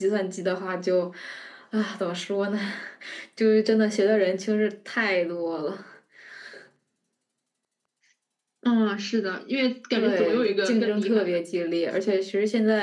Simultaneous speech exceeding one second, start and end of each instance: 10.0-11.4

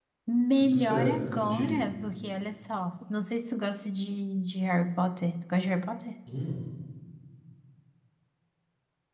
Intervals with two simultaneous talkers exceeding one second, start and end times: 0.6-1.8

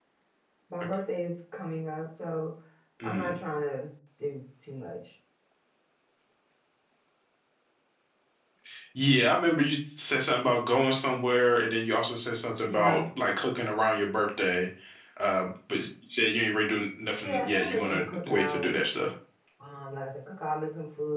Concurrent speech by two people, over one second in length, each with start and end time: 17.2-18.7

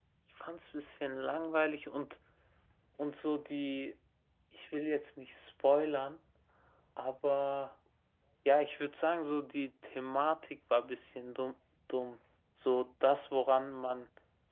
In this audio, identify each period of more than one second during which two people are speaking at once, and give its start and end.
none

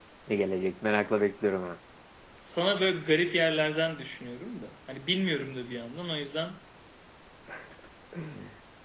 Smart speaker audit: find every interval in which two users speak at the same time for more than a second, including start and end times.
none

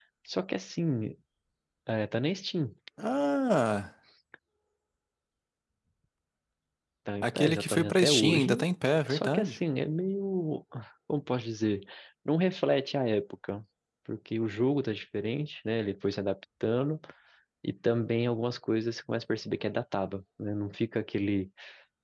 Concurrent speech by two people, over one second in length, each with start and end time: 7.2-8.6

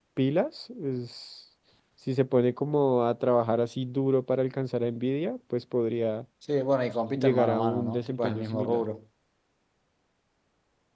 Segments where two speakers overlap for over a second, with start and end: 7.2-8.8

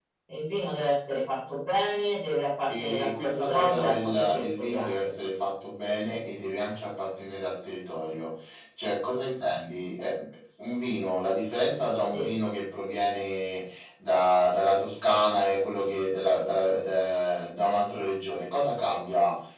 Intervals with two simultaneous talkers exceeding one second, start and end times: 2.7-5.1

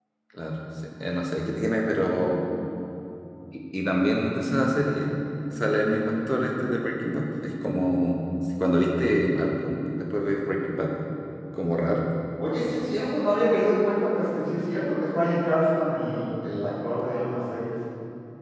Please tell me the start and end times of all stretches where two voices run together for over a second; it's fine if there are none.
none

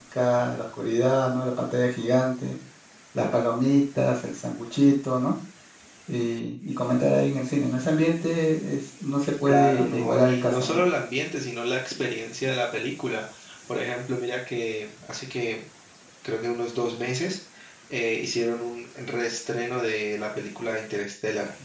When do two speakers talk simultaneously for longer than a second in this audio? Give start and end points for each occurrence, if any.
9.5-10.8

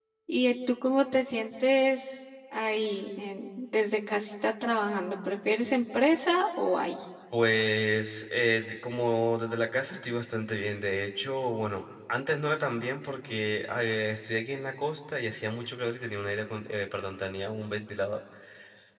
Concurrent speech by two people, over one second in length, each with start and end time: none

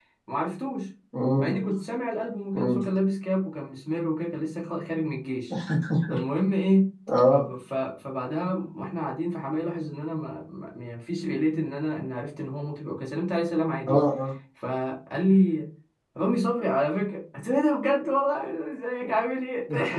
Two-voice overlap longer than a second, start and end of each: none

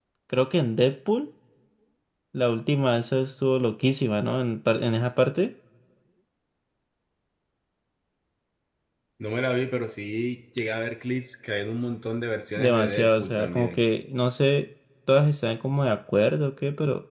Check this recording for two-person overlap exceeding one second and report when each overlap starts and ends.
12.6-13.8

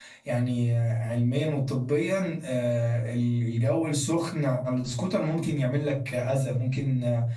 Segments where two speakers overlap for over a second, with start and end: none

